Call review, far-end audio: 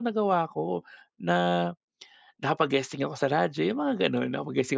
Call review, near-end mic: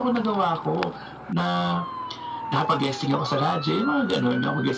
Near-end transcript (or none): none